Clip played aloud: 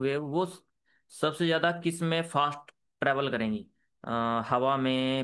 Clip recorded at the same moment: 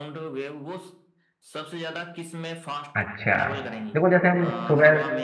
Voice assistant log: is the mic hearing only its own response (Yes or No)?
No